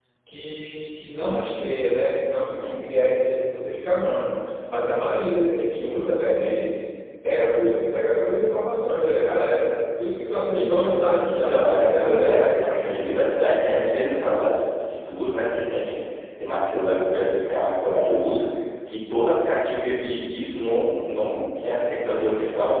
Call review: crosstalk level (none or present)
present